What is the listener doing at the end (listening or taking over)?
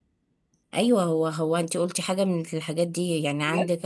listening